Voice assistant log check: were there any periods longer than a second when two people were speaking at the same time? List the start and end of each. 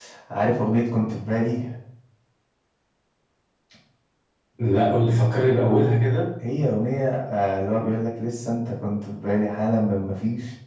none

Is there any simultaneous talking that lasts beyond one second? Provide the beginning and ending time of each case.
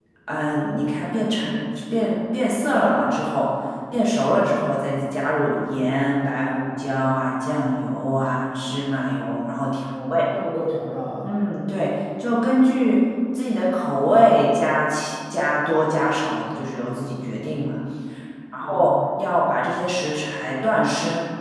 none

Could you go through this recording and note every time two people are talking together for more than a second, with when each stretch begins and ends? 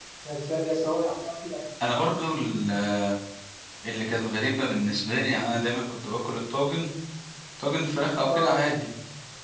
none

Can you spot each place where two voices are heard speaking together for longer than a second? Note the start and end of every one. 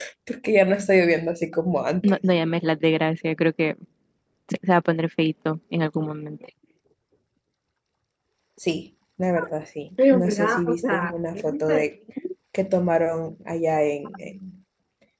10.1-11.8

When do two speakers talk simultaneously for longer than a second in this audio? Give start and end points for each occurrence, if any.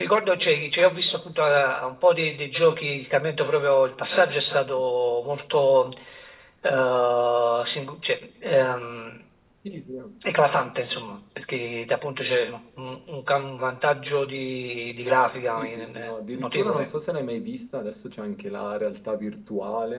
15.6-16.9

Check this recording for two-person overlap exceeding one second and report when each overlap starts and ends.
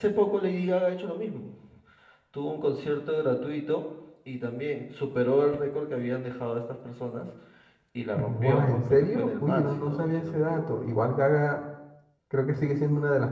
8.2-10.6

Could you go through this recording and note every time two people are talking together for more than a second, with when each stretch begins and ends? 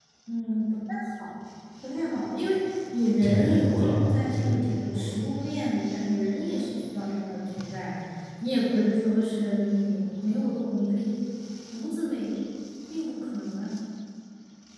3.2-5.2

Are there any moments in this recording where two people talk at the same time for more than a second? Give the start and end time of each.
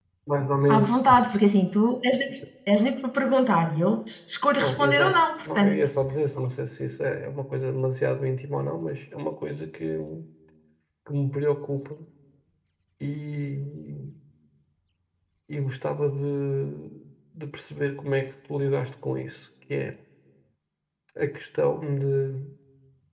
4.6-5.9

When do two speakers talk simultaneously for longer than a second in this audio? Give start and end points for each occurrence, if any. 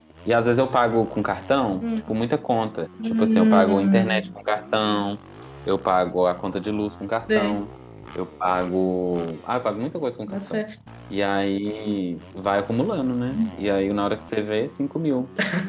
3.0-4.3

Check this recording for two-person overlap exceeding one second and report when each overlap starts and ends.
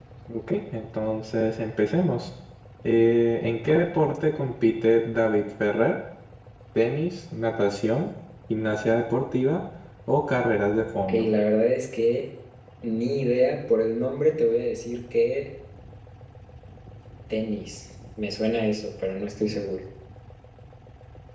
none

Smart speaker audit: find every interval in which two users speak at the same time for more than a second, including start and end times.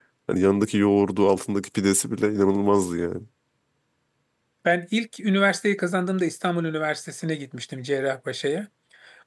none

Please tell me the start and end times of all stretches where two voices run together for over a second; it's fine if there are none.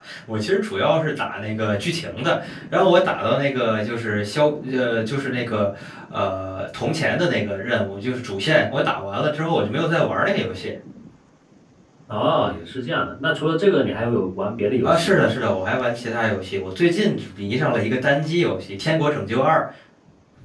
none

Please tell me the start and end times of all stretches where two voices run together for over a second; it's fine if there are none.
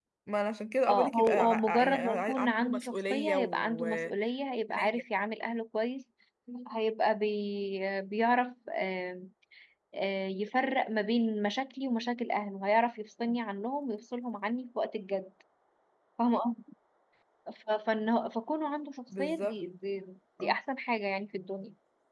0.9-4.1

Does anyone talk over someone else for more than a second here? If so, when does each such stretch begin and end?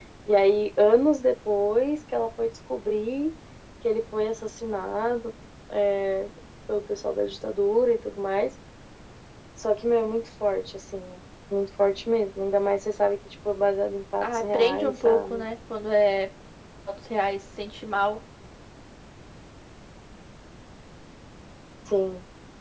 14.2-15.4

